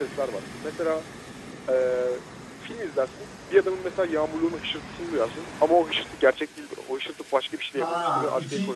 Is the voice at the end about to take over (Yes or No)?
Yes